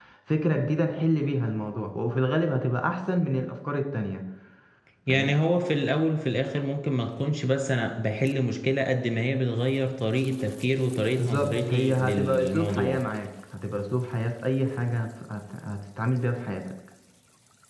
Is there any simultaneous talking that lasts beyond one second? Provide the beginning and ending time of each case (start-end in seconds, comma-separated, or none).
11.1-13.0